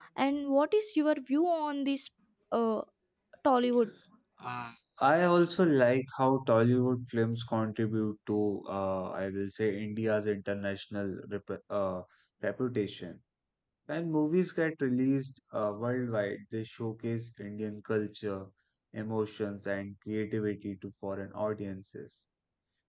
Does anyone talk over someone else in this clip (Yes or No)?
No